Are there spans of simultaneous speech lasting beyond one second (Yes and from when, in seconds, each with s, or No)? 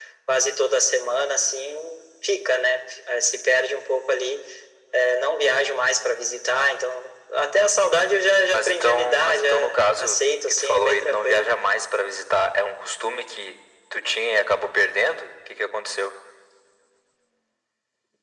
Yes, from 8.5 s